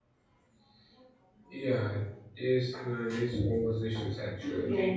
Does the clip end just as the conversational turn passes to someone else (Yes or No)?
Yes